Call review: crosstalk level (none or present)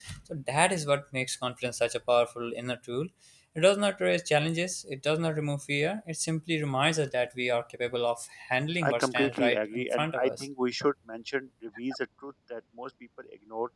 present